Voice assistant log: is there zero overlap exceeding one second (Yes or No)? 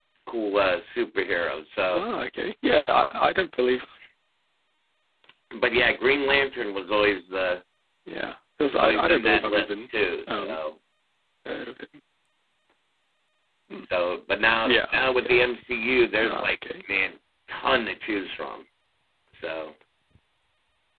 No